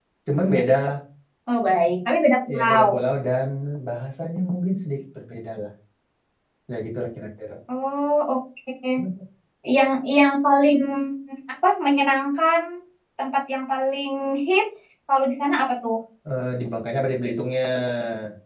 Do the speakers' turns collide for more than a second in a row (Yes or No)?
No